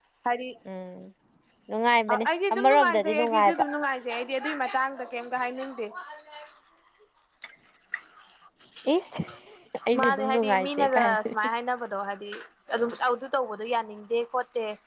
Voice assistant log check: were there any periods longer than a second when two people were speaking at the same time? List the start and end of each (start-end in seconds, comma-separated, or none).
2.1-3.6, 10.0-11.3